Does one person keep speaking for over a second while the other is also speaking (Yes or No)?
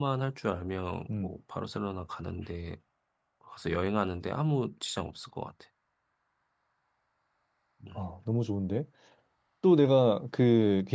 No